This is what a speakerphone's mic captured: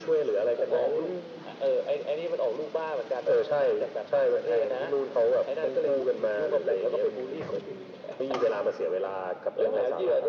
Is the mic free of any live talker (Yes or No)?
Yes